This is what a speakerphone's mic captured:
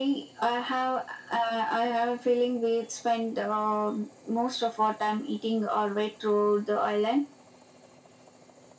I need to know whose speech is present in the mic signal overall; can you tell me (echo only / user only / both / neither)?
echo only